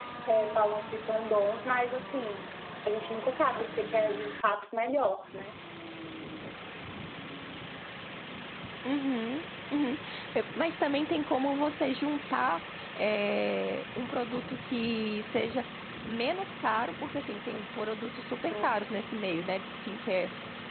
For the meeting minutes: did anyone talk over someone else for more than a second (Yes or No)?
No